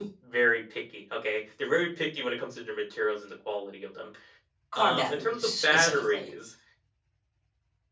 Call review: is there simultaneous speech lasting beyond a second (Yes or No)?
Yes